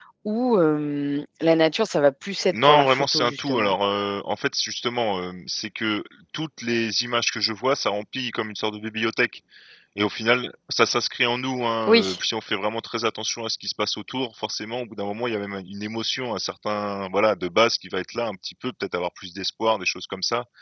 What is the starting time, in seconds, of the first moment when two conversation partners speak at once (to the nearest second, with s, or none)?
3 s